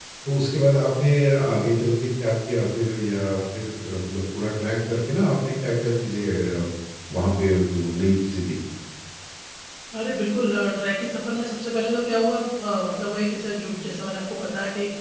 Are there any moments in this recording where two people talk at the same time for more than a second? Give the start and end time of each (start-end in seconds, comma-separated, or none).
none